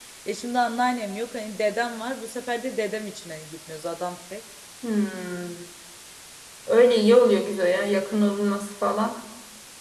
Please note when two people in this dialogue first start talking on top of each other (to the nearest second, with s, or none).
none